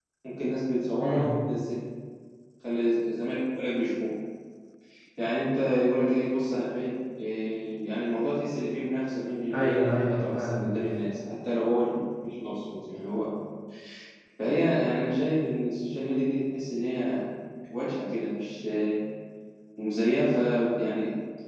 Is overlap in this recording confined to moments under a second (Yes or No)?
No